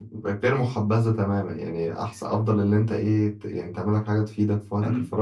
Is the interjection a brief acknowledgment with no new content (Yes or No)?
Yes